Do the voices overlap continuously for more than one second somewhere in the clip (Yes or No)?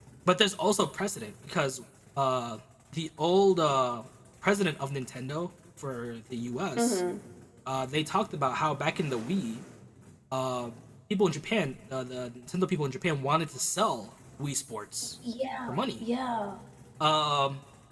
No